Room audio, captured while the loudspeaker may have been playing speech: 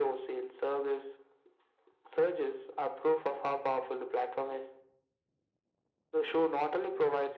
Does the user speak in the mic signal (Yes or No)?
No